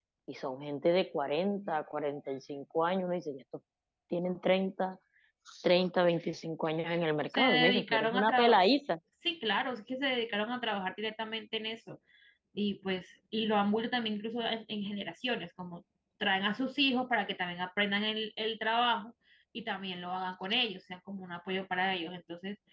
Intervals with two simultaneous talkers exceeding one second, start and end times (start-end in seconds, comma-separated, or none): 7.3-8.6